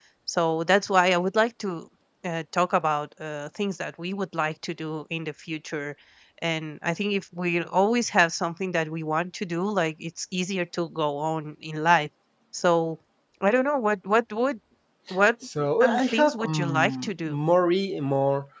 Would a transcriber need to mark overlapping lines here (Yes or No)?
Yes